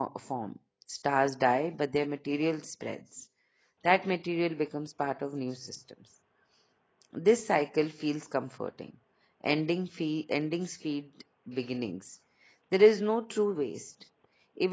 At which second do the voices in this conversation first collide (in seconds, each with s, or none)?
none